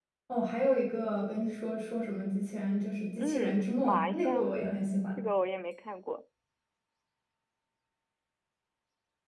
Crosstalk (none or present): present